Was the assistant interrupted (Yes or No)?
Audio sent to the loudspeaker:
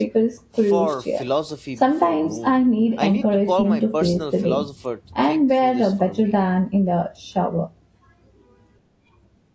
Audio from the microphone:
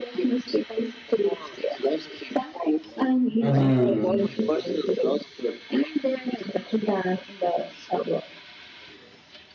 Yes